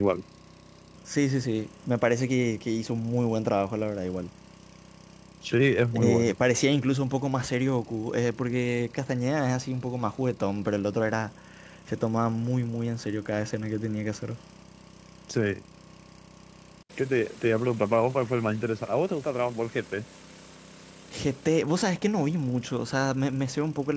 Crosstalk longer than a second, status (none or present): none